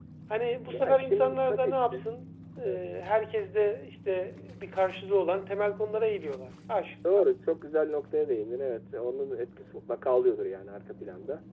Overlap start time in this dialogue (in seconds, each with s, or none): 0.7 s